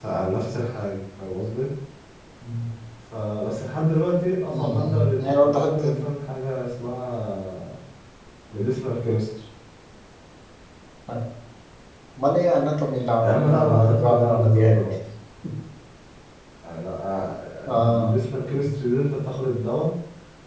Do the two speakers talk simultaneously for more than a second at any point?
Yes, from 4.5 s

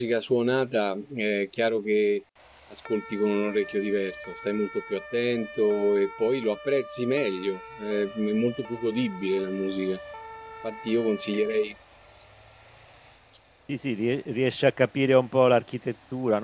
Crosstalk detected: No

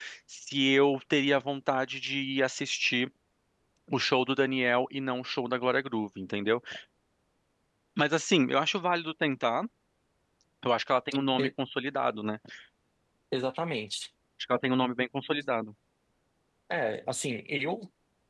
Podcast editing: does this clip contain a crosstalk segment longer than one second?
No

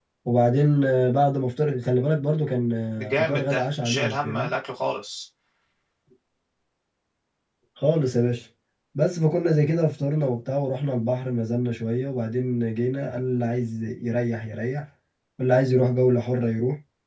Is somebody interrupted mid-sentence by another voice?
Yes, from 3.0 s

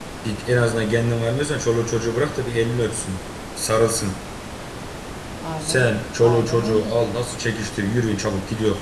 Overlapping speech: Yes, from 5.6 s

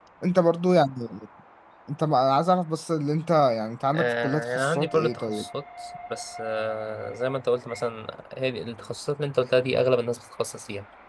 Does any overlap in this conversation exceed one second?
Yes, from 3.9 s

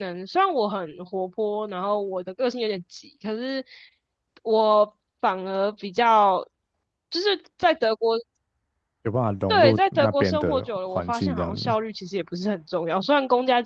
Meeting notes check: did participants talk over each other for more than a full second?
Yes, from 9.5 s

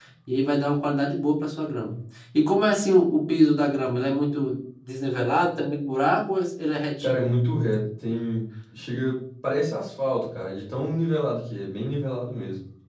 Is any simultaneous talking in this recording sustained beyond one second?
No

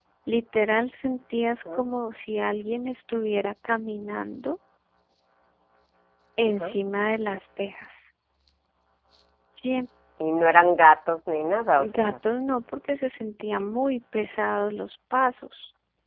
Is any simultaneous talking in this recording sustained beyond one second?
No

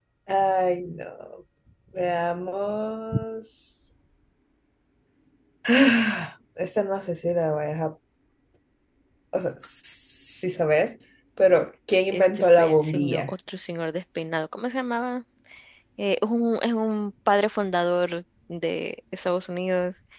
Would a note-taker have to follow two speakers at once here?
Yes, from 12.1 s

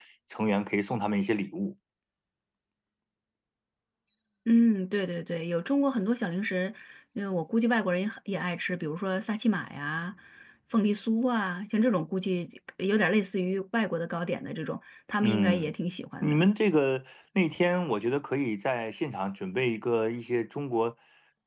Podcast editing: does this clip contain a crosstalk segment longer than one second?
No

